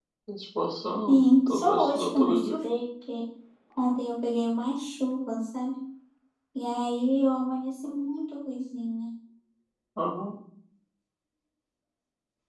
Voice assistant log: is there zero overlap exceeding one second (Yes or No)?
No